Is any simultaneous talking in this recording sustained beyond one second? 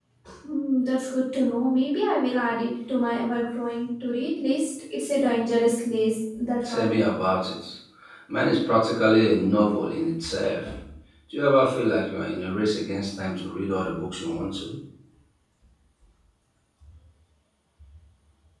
No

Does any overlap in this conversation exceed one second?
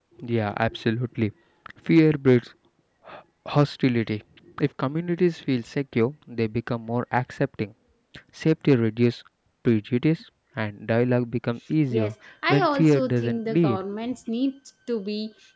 Yes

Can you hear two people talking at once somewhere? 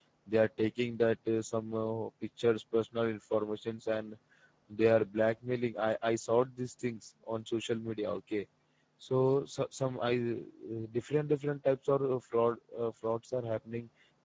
No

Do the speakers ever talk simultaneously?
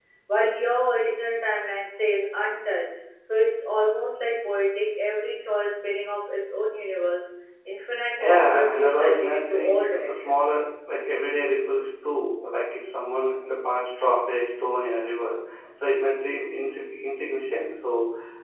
Yes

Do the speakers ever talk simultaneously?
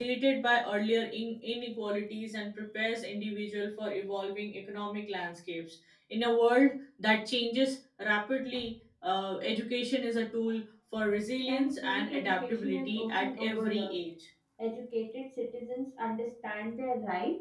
Yes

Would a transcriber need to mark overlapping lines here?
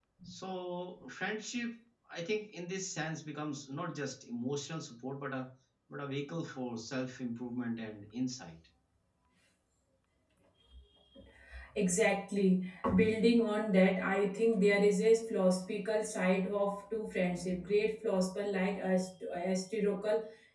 No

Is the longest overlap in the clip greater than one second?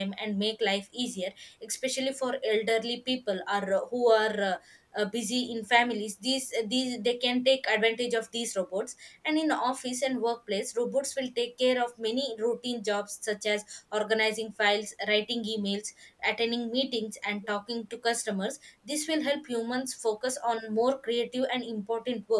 No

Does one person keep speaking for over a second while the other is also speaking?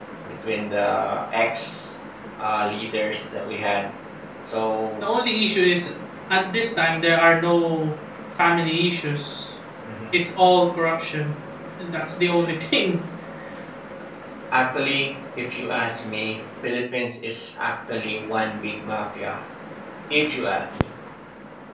No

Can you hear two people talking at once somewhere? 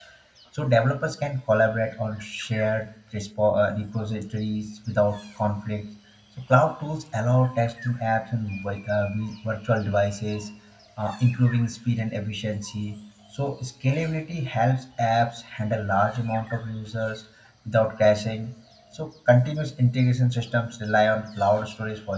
No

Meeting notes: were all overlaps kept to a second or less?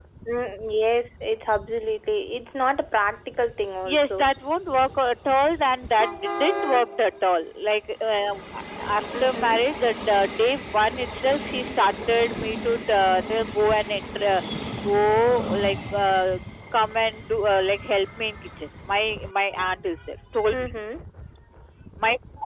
Yes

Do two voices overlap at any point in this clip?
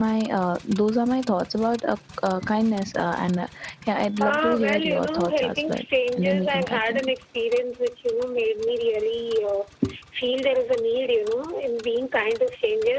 Yes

